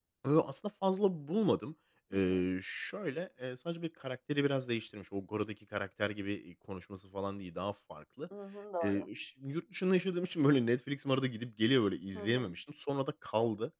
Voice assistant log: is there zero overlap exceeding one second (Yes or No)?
Yes